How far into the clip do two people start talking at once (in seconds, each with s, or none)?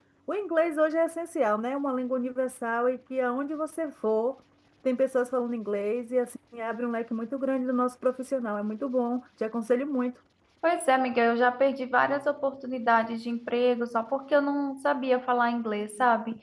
none